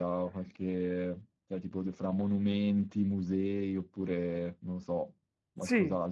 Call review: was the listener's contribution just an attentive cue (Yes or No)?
No